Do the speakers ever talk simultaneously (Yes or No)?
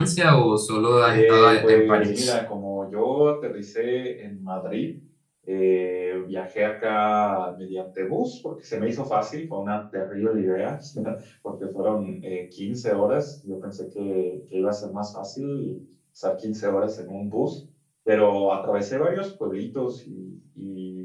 Yes